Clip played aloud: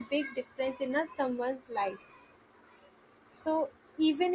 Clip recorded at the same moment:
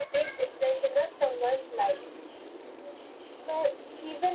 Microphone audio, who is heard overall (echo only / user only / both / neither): echo only